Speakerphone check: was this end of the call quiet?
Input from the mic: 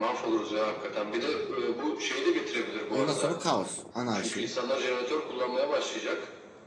No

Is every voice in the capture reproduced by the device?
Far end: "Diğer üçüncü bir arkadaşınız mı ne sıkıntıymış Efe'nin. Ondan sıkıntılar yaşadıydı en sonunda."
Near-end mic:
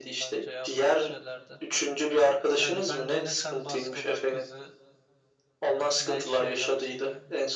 No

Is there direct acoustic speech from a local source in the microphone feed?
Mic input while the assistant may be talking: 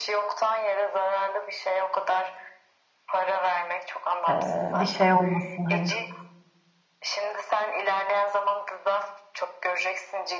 Yes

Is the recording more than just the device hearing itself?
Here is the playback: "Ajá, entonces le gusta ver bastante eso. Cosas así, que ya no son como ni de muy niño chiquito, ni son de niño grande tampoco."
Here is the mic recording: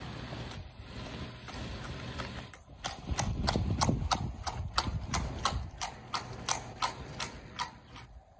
No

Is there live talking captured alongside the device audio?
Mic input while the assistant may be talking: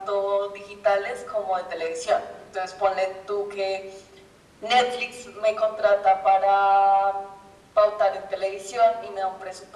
No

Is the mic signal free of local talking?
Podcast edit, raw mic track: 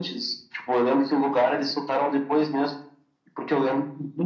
Yes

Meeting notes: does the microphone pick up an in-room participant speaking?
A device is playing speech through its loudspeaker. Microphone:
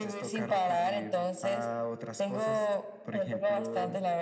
No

